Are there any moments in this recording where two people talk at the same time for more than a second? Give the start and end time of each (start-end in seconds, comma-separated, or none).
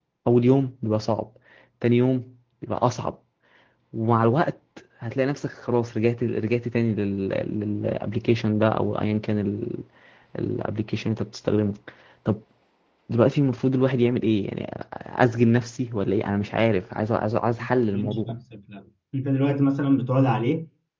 none